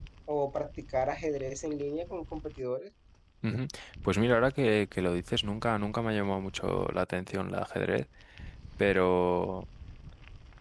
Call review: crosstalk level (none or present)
none